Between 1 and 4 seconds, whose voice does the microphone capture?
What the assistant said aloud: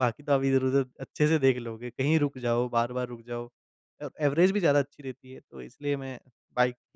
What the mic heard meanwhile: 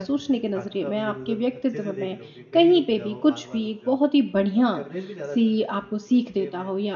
both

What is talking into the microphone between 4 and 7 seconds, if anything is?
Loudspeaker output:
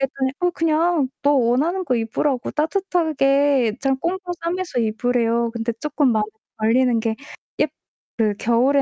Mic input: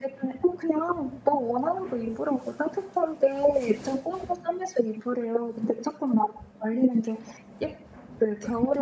echo only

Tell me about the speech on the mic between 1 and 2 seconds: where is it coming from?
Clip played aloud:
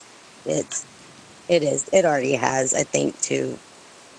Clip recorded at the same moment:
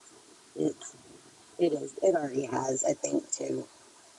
echo only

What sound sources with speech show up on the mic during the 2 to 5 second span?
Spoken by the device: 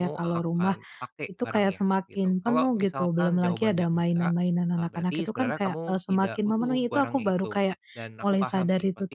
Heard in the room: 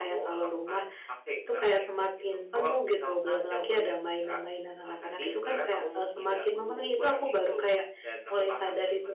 echo only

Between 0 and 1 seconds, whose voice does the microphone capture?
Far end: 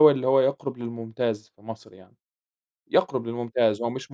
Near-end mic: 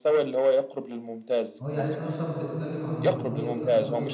echo only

